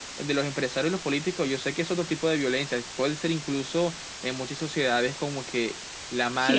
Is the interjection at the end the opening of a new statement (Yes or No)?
Yes